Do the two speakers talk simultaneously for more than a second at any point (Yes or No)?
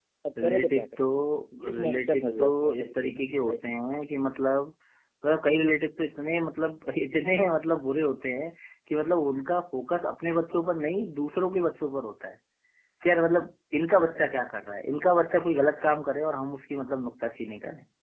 Yes